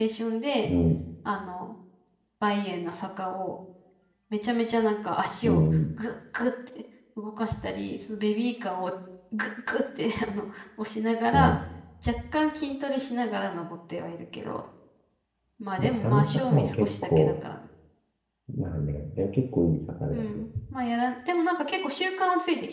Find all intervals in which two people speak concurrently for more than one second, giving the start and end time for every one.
15.8-17.3

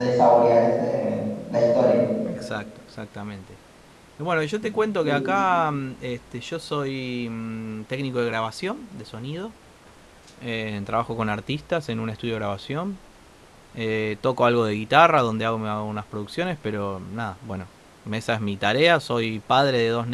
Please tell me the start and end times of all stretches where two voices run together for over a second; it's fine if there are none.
none

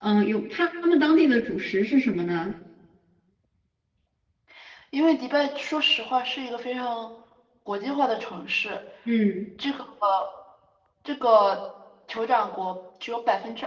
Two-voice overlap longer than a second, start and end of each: none

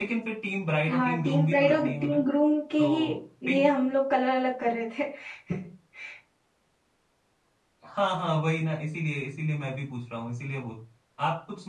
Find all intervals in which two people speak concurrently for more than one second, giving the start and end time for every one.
0.9-2.2

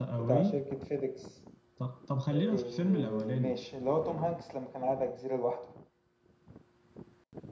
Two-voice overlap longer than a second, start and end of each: 2.3-3.5

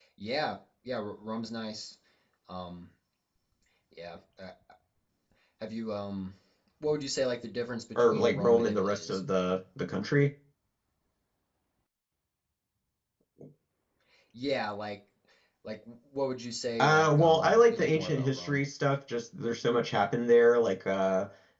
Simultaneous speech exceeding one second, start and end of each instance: 8.0-9.2, 16.8-18.6

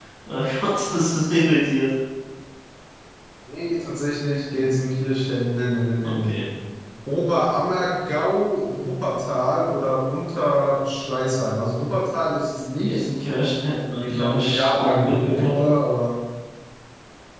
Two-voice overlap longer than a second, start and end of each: 13.9-15.7

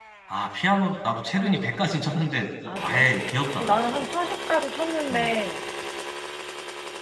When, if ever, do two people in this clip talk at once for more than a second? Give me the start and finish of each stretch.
none

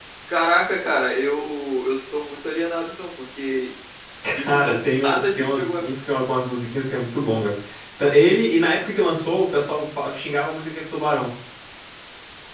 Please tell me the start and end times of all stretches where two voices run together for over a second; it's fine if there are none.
4.4-5.9

